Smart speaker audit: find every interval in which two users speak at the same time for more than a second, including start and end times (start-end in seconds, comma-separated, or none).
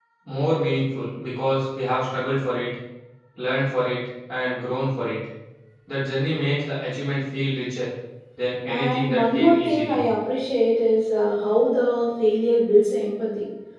8.7-10.0